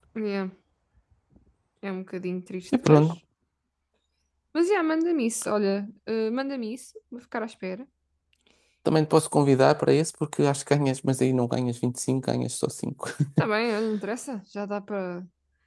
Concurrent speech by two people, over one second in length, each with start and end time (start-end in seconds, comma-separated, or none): none